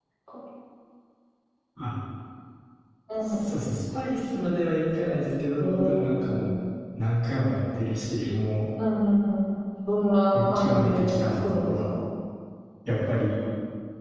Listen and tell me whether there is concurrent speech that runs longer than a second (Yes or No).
Yes